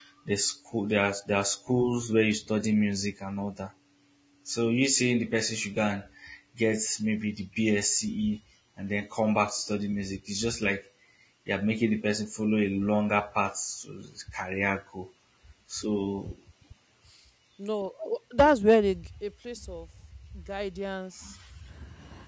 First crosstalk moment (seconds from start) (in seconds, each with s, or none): none